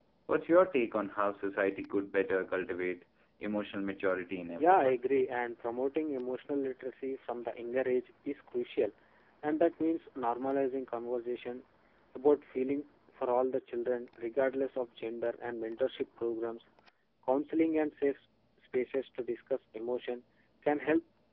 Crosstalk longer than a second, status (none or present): none